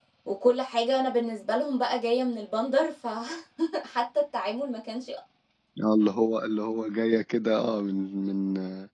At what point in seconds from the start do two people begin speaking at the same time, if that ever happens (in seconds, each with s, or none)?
none